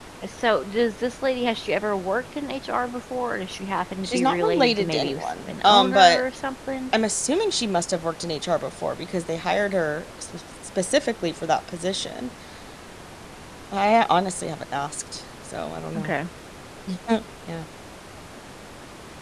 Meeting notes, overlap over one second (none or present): present